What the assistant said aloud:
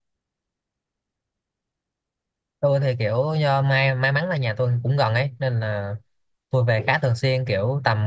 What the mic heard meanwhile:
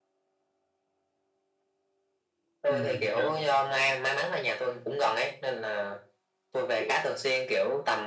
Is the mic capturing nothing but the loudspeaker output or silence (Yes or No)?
No